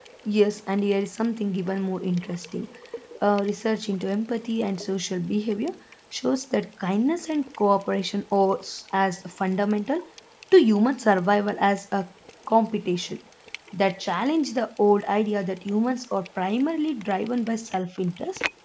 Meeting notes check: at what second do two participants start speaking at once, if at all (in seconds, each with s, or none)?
none